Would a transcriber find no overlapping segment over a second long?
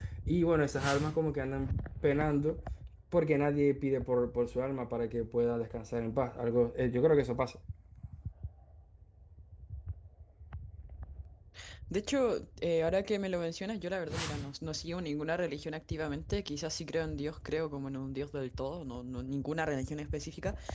Yes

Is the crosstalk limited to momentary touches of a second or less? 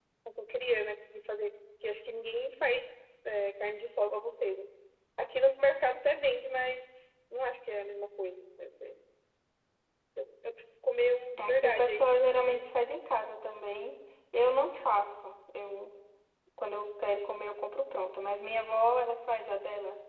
No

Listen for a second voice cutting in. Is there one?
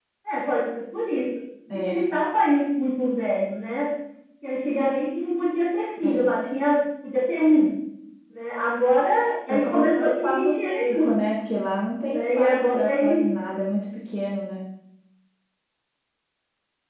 Yes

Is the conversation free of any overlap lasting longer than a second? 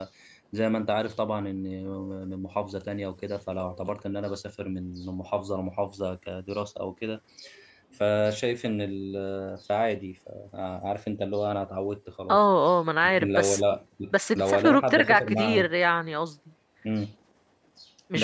No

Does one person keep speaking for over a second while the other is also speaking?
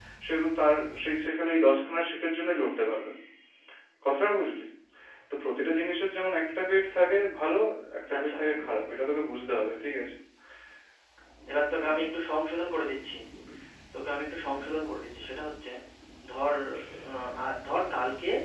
No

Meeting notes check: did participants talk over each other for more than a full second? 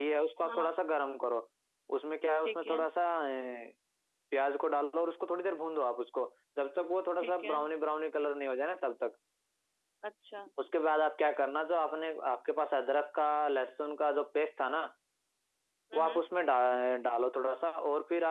No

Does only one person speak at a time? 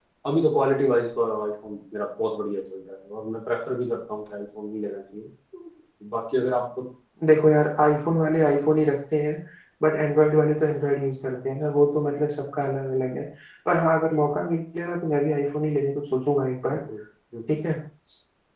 Yes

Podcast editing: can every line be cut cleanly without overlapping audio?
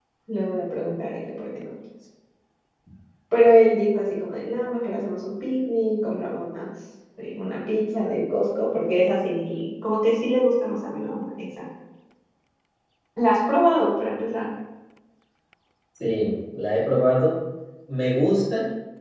Yes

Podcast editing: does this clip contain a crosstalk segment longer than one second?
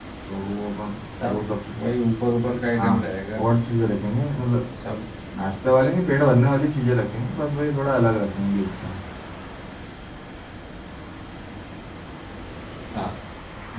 No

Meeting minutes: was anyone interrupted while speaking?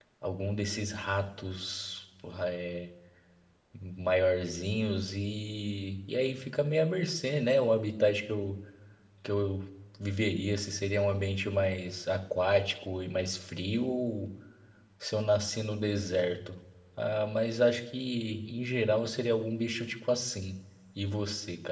No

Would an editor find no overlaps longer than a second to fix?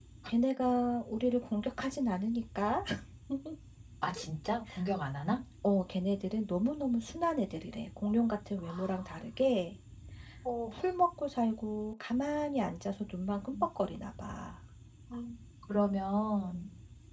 Yes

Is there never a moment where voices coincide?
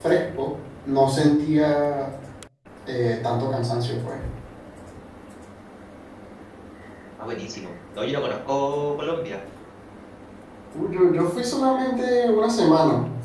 Yes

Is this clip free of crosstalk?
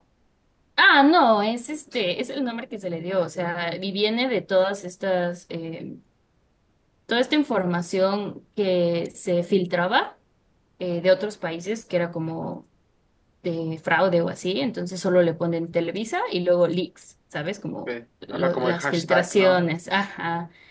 No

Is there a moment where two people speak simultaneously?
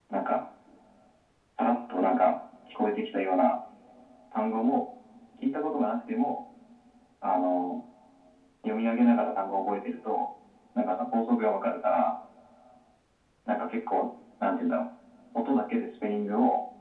No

